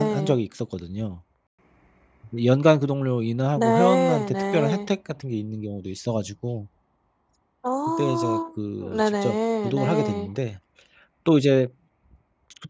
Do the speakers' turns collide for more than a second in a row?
Yes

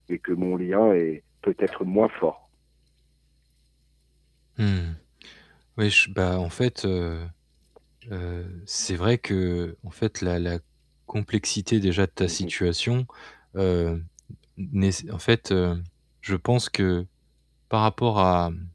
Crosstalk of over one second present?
No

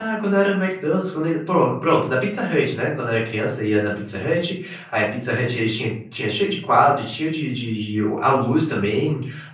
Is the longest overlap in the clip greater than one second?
No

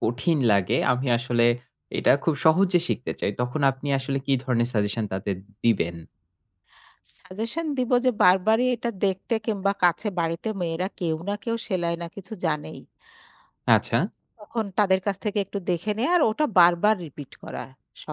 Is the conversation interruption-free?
Yes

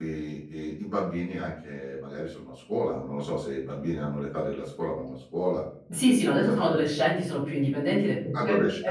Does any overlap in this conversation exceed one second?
No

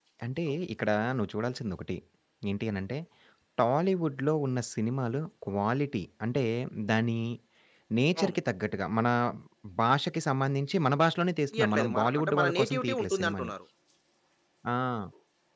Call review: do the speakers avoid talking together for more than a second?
No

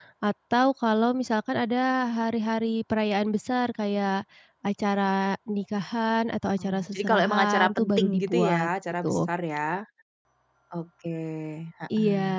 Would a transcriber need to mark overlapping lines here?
Yes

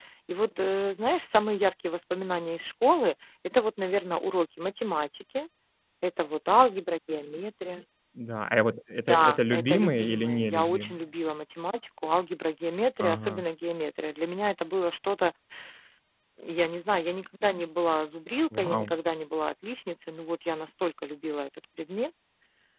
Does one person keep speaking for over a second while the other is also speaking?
Yes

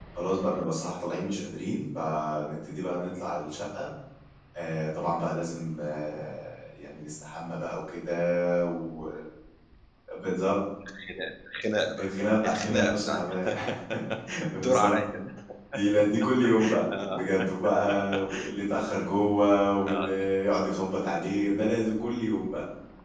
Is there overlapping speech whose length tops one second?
Yes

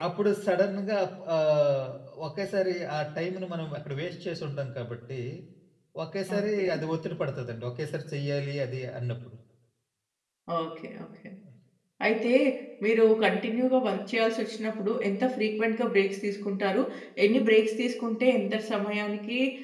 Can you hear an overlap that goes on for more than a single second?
No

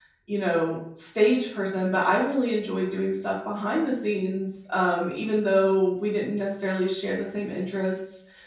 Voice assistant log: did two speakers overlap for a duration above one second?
No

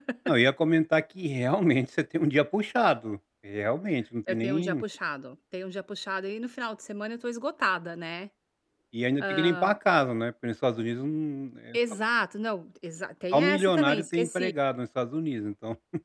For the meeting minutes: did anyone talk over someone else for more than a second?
Yes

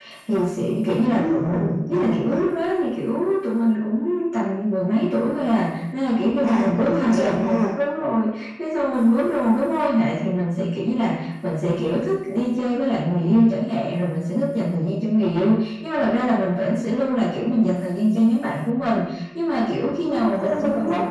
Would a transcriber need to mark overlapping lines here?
Yes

